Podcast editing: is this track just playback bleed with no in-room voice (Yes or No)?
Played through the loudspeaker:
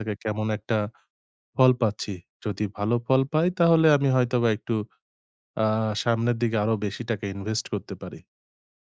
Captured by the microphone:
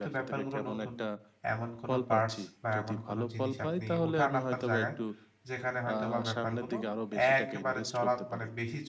No